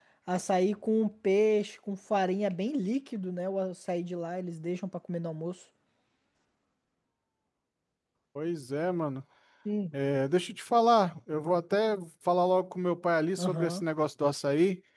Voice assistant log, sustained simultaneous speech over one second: none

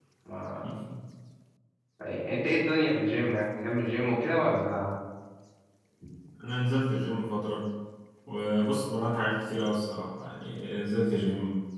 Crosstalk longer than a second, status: none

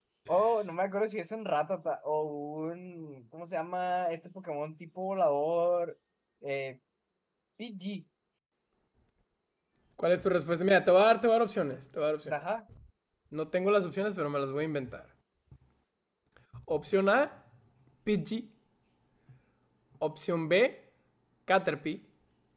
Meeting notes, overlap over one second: none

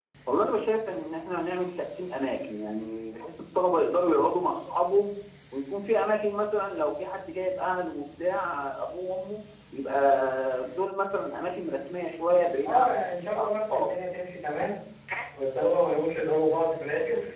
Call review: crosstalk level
present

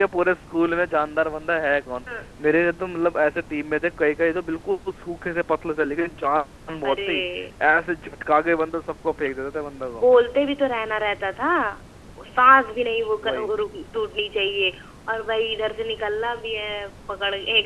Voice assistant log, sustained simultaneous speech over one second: none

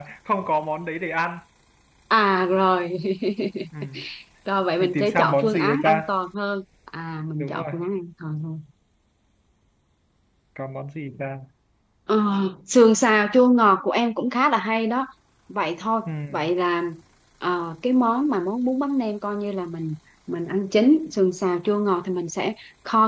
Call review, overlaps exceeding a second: present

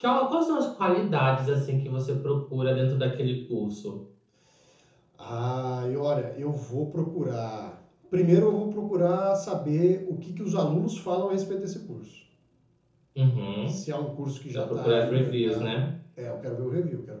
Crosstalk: present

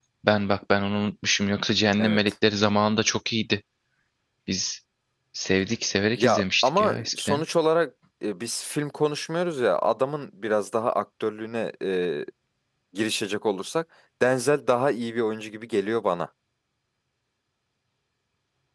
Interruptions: present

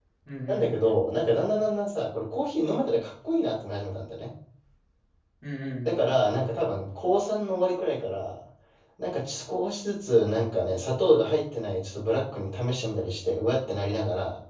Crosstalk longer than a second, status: none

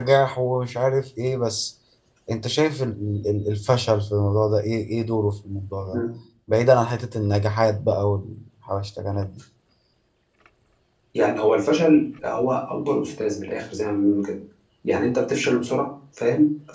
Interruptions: none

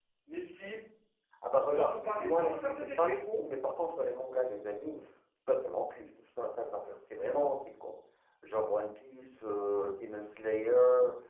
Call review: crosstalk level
present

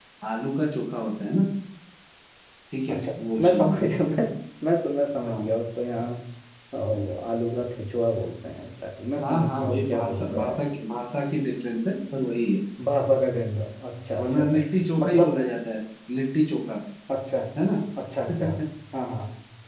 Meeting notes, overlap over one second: present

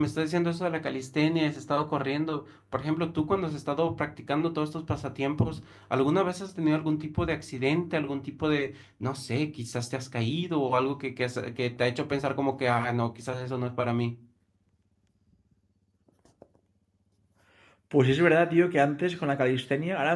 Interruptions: none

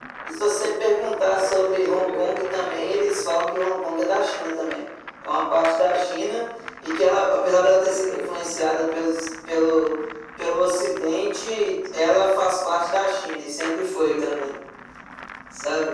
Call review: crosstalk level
present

